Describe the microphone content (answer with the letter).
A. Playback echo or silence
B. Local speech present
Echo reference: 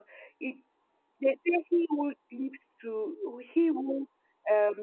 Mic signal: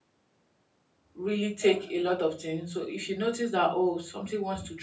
B